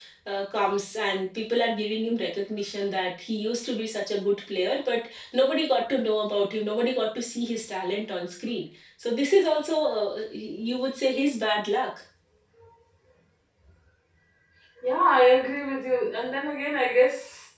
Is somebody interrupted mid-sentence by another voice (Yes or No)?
No